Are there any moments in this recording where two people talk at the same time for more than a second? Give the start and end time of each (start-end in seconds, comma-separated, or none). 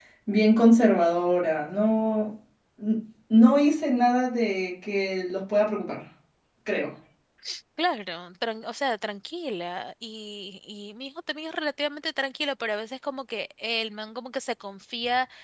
none